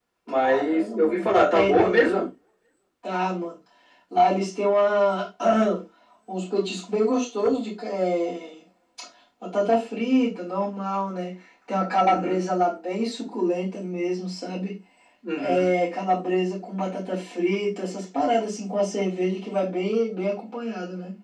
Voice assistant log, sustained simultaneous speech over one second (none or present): present